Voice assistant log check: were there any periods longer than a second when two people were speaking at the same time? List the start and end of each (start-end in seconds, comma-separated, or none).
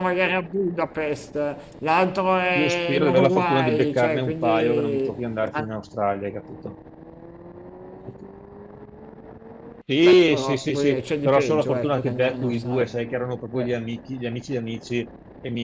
2.5-5.1, 10.0-12.9